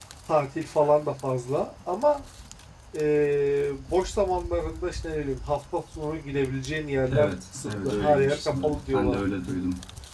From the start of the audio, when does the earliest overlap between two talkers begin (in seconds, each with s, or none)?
7.1 s